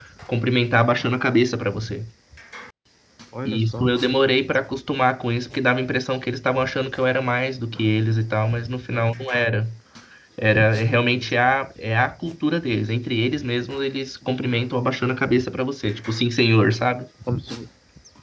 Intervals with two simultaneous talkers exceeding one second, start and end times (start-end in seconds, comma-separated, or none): none